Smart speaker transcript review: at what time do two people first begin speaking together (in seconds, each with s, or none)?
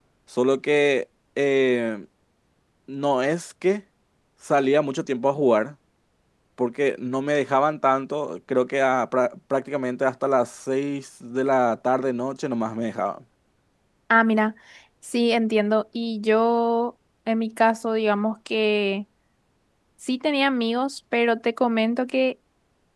none